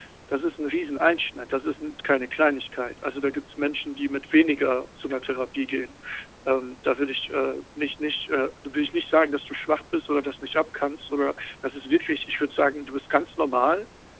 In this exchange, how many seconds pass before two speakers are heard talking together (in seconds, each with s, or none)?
none